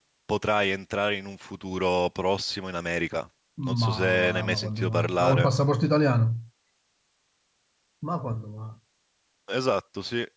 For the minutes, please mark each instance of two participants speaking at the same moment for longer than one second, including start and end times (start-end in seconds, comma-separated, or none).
3.7-5.5